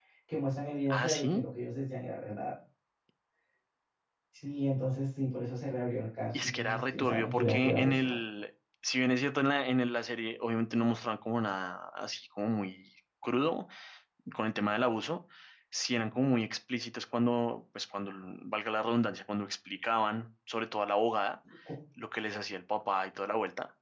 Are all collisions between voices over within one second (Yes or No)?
No